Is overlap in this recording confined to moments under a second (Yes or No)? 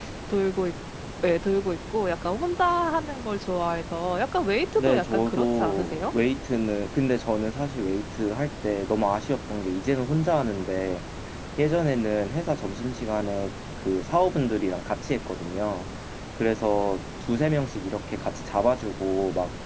No